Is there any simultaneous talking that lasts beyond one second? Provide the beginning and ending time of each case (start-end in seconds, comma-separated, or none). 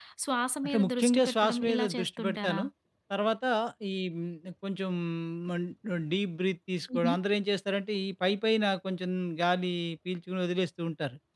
0.6-2.6